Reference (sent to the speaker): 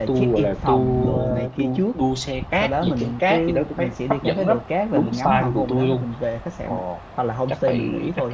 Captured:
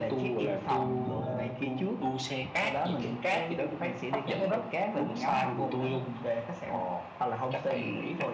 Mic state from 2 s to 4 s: echo only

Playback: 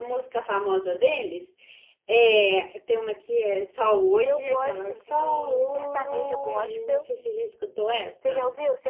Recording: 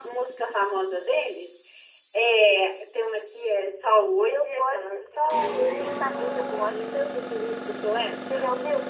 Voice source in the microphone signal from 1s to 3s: echo only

